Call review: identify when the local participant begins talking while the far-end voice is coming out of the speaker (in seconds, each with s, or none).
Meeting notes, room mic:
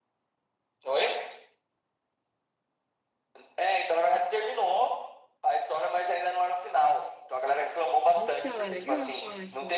8.2 s